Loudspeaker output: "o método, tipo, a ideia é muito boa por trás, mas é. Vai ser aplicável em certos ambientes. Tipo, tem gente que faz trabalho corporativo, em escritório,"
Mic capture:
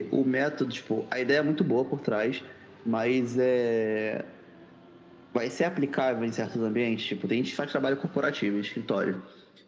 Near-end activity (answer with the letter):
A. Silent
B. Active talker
A